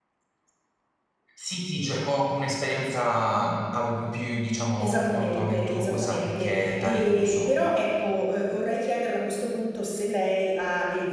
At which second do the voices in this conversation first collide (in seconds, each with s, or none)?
4.8 s